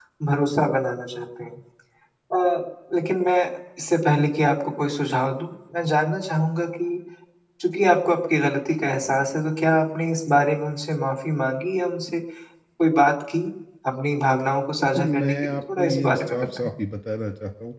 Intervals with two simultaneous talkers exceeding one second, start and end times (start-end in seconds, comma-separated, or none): 14.8-16.7